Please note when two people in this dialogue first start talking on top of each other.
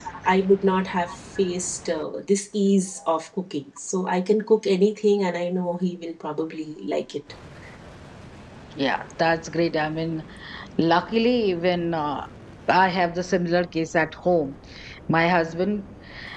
none

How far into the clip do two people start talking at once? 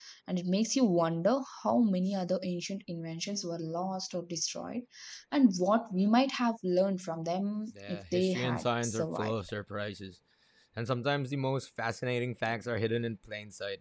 7.8 s

